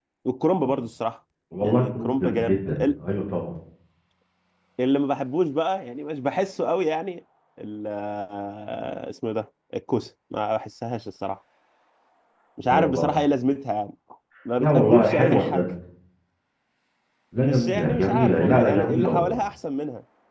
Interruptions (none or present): present